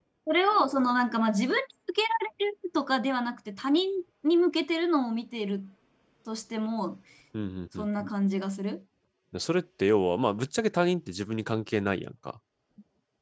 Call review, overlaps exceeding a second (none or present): none